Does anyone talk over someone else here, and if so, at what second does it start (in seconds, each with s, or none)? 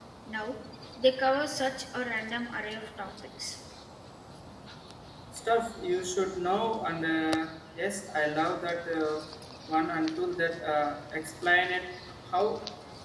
none